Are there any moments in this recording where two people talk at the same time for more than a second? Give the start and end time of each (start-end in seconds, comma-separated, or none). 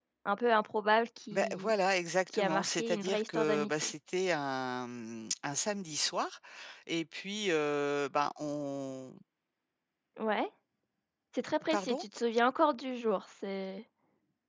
2.3-3.9